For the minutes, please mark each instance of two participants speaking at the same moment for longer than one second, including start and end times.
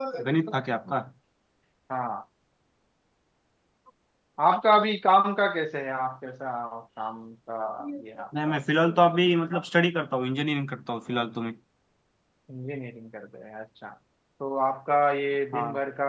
none

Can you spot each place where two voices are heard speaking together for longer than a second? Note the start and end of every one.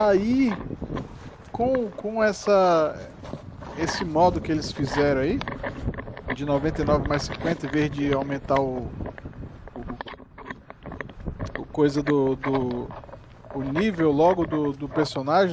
none

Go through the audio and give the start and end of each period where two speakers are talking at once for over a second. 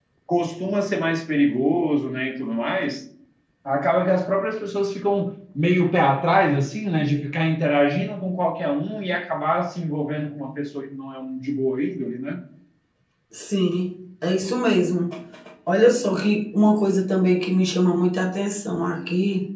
none

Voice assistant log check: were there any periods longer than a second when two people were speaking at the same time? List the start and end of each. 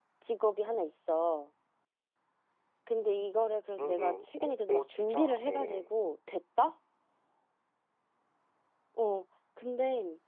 3.8-5.9

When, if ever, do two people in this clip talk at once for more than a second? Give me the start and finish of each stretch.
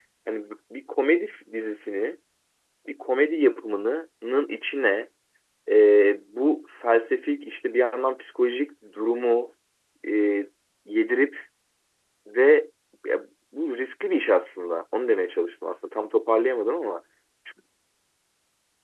none

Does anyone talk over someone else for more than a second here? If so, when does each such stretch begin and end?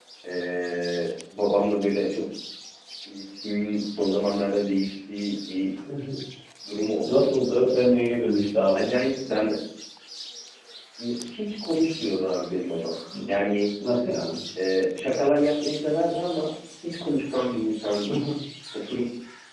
none

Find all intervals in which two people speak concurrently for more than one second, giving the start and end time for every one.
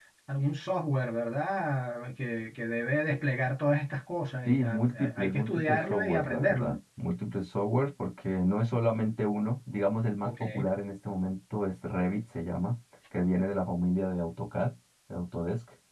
4.4-6.8

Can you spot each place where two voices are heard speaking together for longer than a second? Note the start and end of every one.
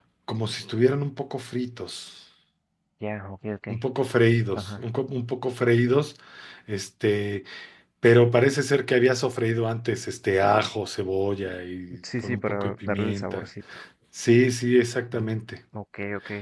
12.2-13.5

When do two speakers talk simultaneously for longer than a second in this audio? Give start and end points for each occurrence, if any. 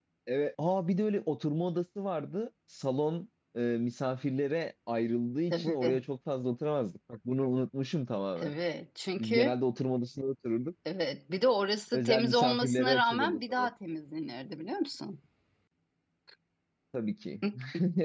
11.9-13.7

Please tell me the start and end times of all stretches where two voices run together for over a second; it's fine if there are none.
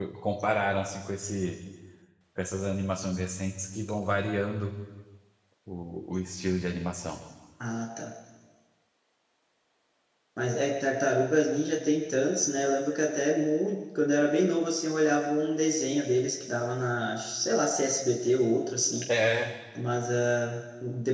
none

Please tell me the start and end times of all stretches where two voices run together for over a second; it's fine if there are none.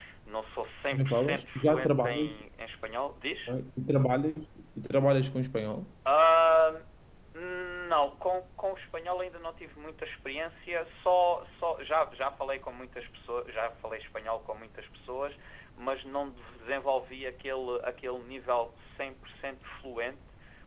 0.9-2.3

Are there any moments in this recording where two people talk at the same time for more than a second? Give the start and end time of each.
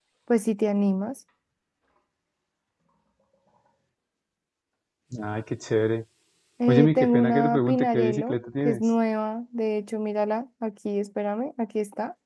6.7-8.9

